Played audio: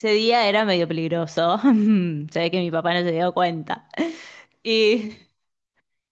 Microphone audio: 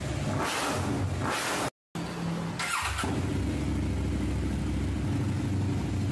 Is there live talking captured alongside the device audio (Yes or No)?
No